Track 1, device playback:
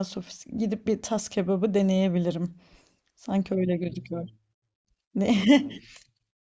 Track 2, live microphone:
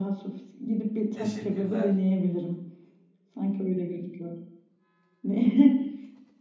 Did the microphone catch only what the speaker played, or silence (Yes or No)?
No